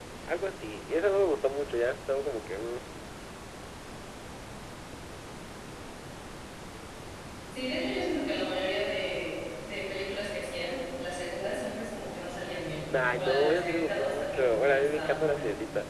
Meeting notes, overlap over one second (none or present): present